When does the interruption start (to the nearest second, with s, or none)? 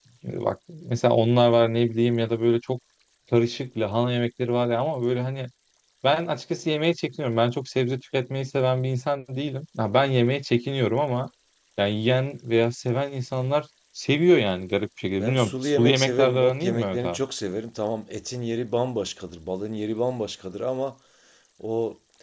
15 s